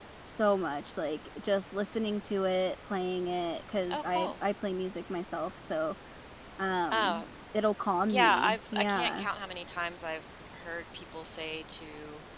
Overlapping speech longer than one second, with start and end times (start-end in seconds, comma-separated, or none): 8.1-9.3